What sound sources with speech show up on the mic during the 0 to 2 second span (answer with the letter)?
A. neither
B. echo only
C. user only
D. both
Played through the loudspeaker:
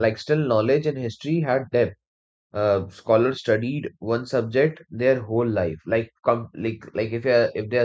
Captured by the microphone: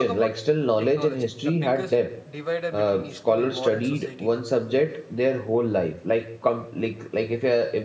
D